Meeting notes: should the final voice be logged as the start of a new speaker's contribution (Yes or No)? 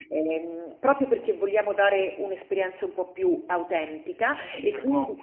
Yes